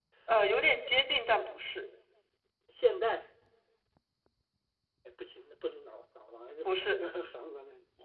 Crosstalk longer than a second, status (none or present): none